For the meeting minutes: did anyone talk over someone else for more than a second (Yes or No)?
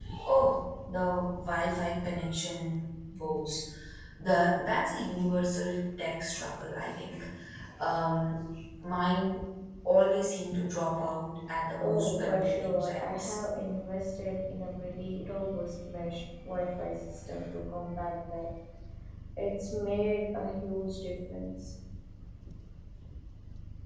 Yes